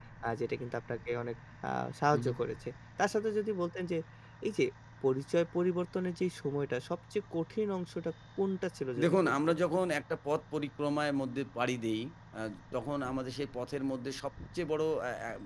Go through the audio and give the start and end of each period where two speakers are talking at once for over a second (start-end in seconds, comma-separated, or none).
none